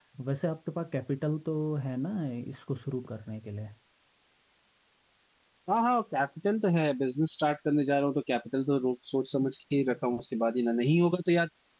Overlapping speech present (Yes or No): No